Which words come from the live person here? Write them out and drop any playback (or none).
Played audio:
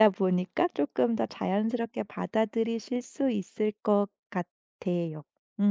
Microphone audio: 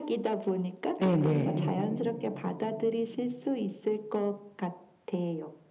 네네.